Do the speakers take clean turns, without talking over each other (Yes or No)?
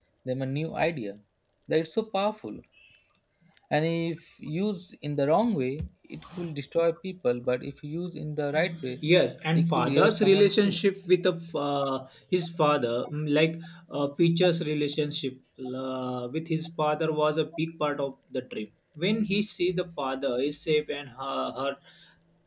No